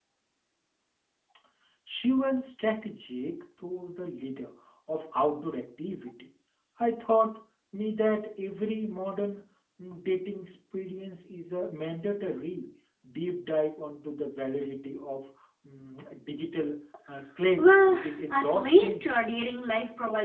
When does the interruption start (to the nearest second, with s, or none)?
18 s